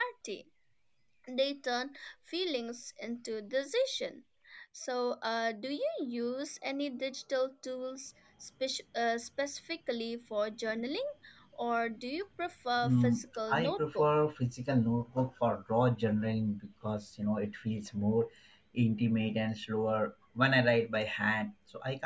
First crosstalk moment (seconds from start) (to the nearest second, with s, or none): 13 s